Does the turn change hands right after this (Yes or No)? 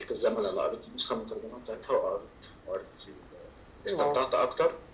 No